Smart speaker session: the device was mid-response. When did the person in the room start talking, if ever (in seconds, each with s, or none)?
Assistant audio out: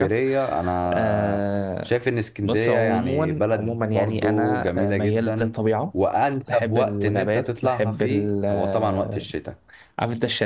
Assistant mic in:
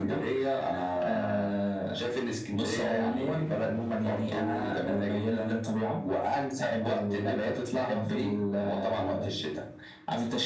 none